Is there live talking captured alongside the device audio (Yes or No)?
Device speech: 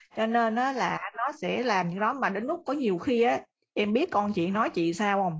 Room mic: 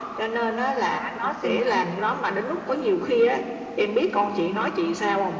Yes